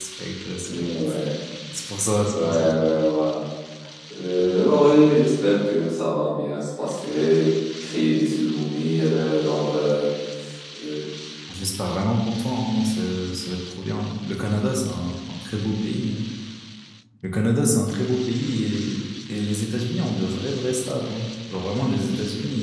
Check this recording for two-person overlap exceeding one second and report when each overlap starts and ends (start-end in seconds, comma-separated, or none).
none